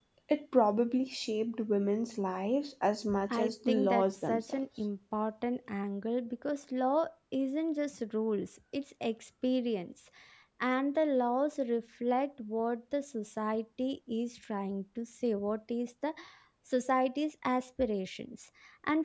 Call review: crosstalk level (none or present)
present